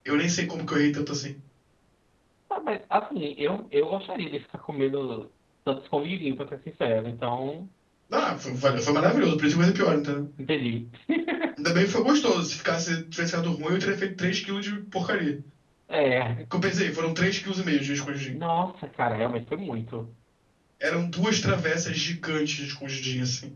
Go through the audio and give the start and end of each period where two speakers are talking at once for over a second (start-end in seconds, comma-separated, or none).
none